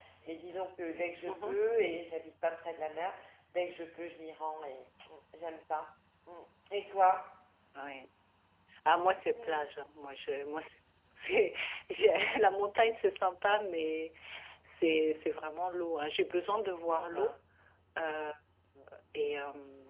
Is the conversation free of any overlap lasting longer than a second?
Yes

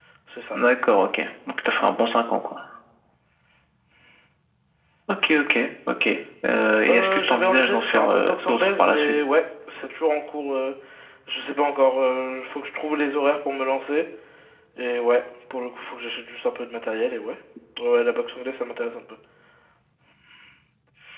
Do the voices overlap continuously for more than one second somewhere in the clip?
Yes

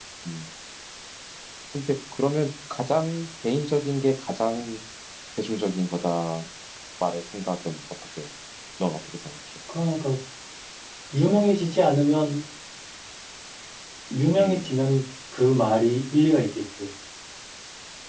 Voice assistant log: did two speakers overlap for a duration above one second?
No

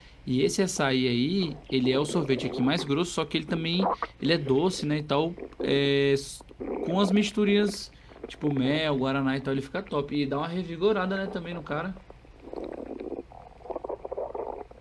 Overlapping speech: No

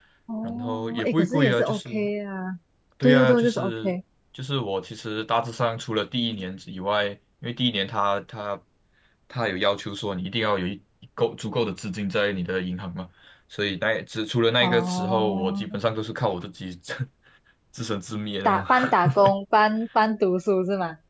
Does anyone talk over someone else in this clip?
Yes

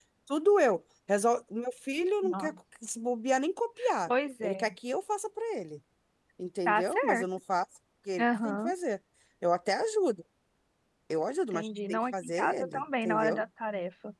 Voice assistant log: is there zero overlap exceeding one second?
No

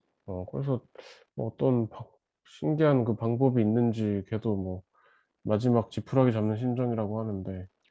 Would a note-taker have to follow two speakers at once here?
No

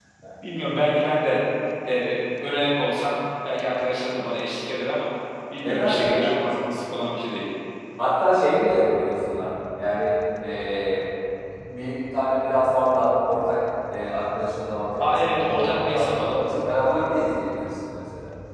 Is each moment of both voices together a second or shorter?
No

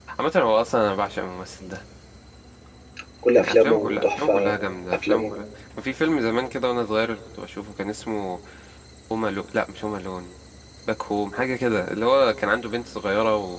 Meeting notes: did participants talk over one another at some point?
Yes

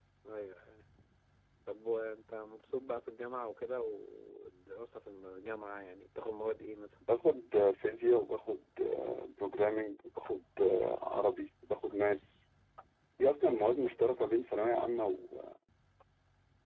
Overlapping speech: No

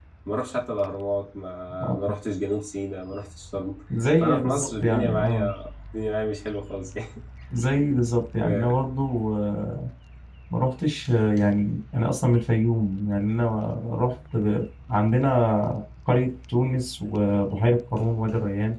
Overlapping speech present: Yes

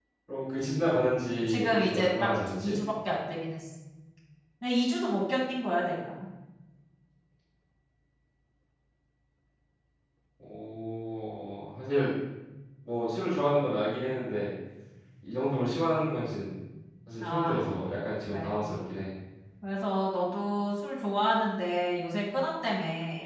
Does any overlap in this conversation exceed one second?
Yes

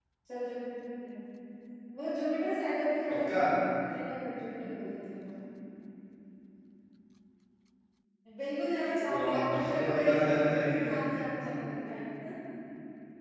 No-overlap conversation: No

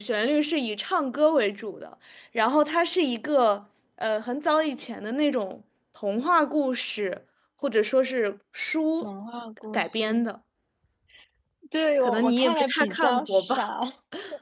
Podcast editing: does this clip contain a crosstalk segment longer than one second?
Yes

